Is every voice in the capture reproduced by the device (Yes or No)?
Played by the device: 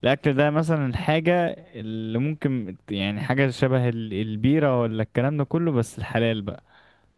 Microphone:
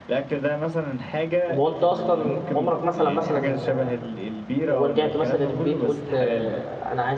No